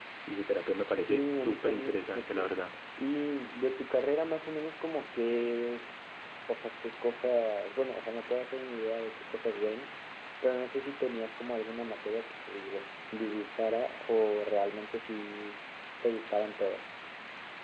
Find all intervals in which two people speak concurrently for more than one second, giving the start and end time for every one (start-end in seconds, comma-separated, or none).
0.9-2.5